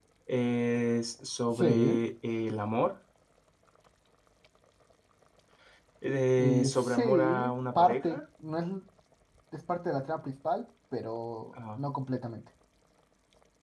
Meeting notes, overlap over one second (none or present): present